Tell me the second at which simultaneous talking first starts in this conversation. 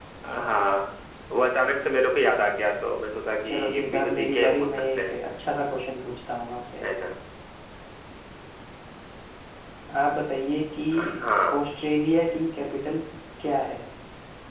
3.4 s

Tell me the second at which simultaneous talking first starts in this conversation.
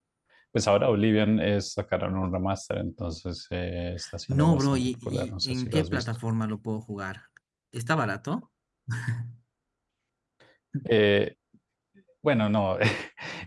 4.3 s

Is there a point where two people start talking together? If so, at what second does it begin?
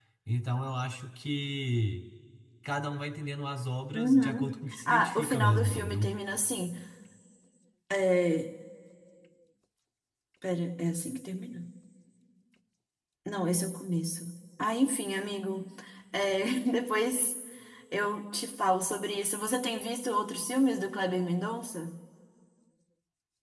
3.9 s

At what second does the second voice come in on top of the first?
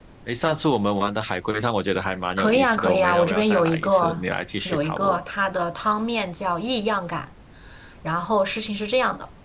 2.4 s

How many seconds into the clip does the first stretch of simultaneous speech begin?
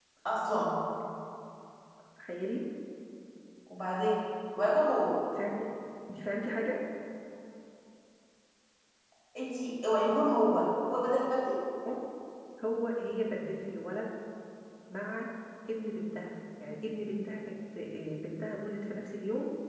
none

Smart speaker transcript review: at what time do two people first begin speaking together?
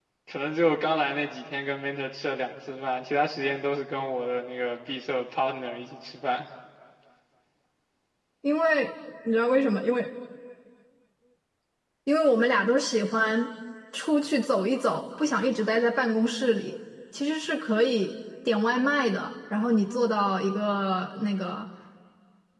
none

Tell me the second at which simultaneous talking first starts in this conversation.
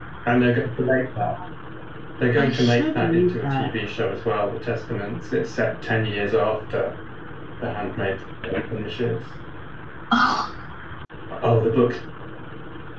2.4 s

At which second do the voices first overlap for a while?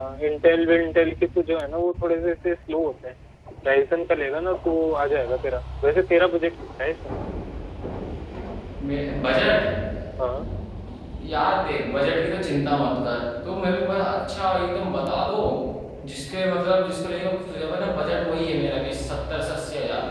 none

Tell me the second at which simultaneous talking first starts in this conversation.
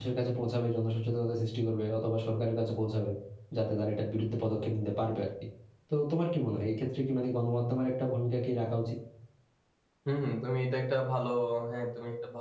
none

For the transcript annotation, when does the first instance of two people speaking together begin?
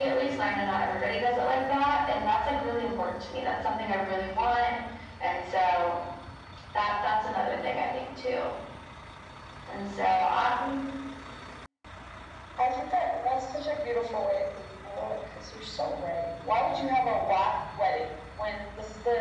none

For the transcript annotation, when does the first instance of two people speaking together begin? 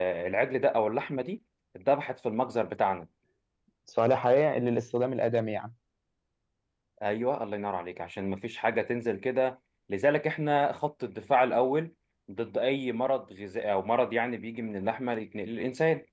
none

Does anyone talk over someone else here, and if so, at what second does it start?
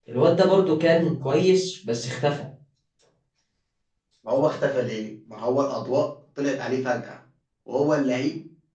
none

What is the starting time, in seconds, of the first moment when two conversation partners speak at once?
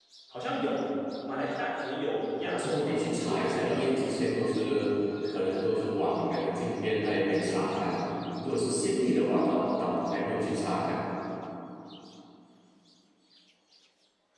2.4 s

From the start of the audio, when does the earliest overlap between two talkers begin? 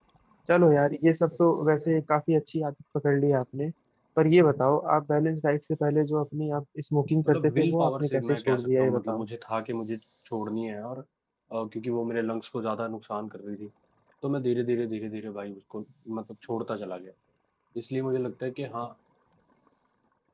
7.2 s

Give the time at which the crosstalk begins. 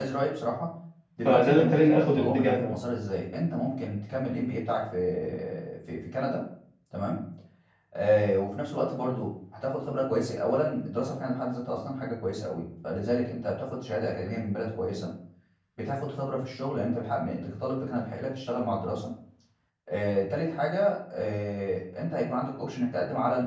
1.2 s

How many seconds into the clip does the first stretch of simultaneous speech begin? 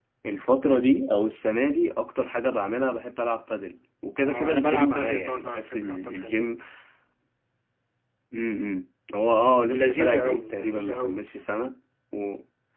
4.2 s

